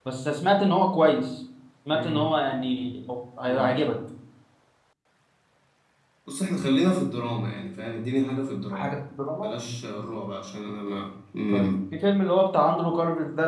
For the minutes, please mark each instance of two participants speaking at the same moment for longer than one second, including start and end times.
none

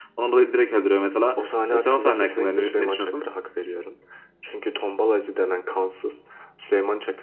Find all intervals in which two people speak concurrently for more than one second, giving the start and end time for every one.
1.4-3.2

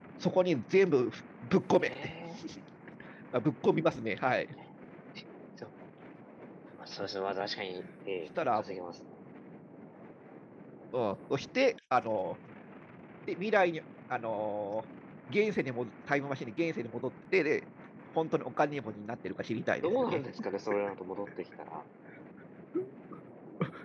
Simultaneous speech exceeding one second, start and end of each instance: none

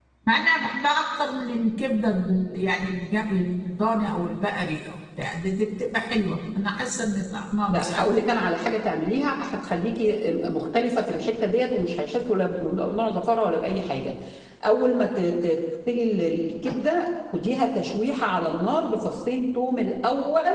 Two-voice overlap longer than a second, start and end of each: none

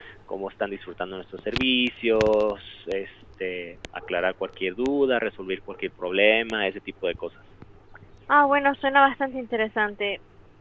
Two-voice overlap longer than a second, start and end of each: none

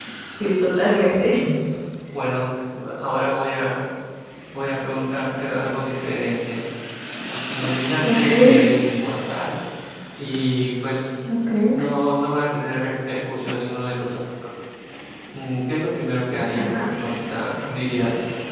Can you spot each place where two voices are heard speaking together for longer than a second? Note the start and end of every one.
none

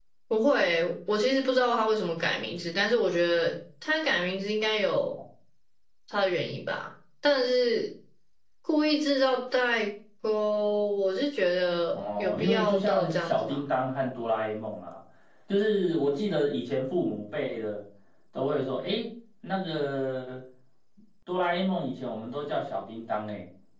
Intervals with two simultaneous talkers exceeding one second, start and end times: 11.9-13.6

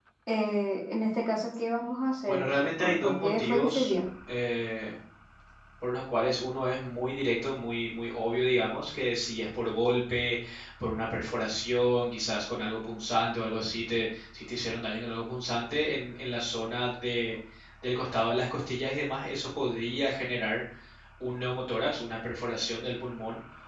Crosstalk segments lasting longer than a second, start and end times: 2.2-3.9

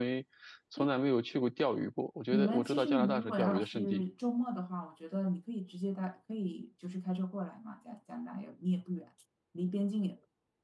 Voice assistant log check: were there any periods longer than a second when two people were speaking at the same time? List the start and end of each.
2.3-4.0

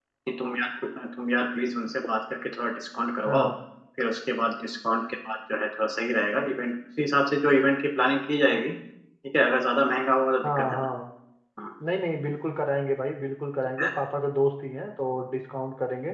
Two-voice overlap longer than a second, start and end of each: none

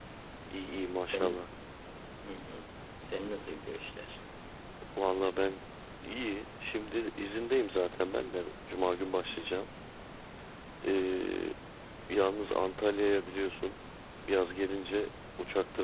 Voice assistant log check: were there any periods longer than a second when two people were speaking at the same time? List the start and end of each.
none

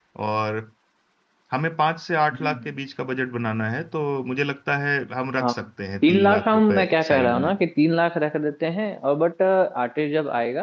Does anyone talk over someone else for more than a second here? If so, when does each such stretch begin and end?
6.1-7.6

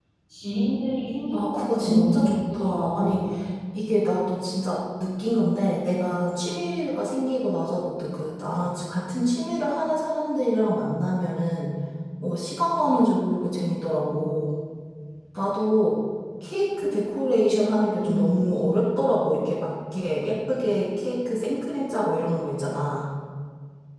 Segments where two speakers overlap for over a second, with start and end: 1.3-3.2

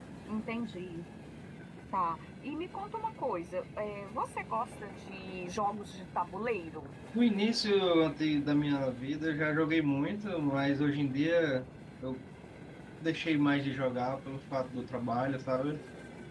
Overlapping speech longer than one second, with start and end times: none

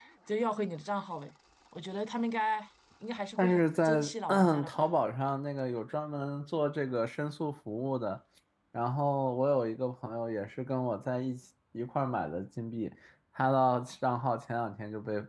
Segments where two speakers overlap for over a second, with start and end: 3.4-4.8

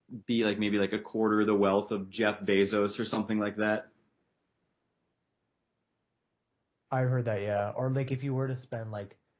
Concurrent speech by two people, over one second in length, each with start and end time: none

